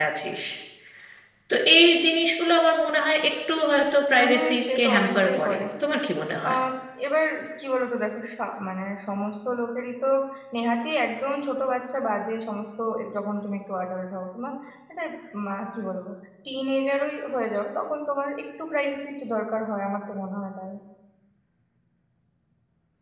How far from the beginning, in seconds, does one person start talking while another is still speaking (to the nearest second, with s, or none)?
4 s